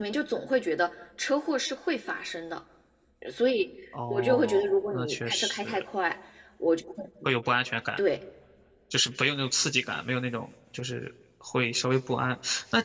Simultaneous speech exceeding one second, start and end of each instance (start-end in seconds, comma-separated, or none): 4.1-5.8